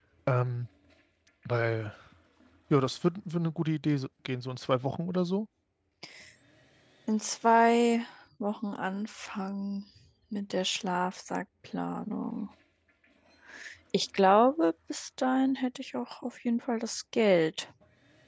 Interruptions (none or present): none